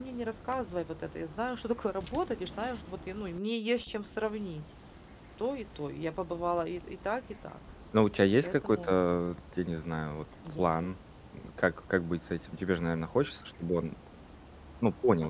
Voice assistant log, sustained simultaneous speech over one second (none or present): none